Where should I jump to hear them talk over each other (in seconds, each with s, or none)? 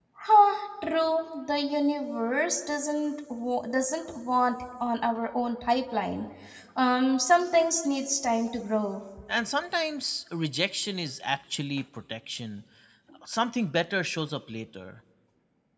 none